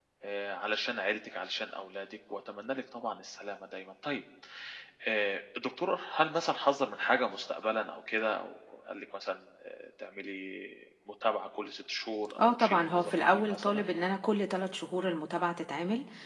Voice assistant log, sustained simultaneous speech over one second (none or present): present